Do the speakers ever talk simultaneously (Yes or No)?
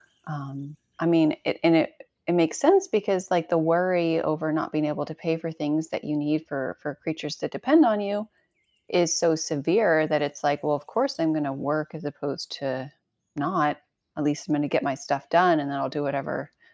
No